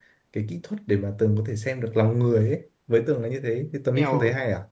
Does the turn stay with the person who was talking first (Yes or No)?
No